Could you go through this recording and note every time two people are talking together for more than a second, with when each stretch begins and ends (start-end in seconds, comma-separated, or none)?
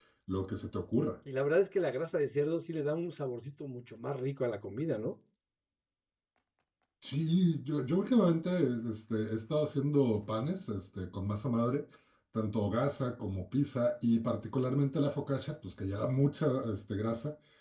none